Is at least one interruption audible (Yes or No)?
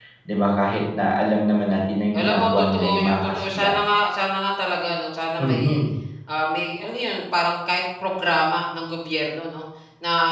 Yes